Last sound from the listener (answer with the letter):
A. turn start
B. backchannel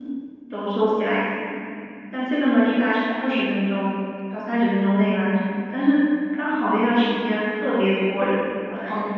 A